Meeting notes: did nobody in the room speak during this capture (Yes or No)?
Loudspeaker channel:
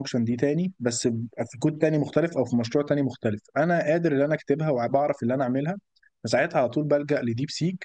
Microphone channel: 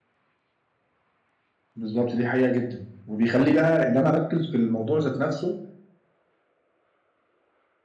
No